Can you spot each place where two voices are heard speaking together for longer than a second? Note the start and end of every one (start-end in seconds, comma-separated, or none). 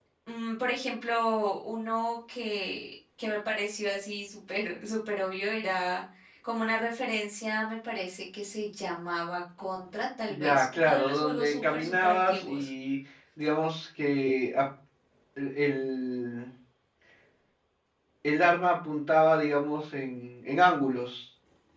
10.3-12.7